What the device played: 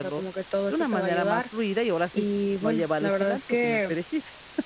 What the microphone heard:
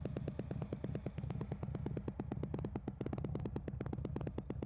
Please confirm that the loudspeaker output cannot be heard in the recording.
Yes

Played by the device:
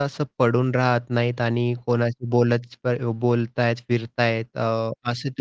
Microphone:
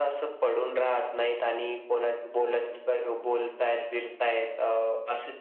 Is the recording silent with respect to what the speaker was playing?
No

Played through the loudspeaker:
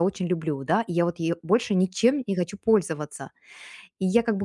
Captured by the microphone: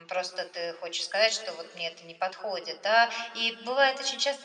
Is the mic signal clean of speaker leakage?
Yes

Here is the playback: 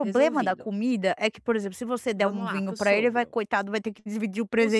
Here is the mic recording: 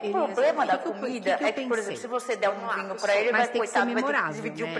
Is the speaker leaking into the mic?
Yes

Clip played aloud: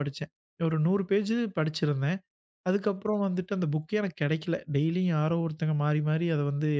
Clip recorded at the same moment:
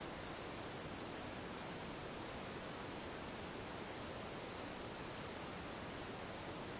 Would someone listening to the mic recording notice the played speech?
No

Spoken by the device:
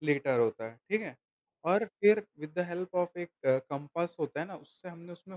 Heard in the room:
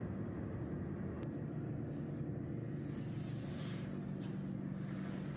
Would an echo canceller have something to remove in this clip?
No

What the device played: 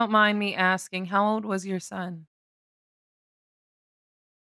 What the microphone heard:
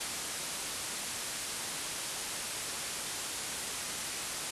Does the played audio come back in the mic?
No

